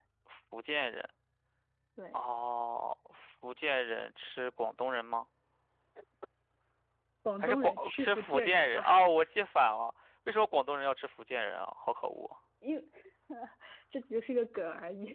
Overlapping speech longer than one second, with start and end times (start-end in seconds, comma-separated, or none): 7.4-8.8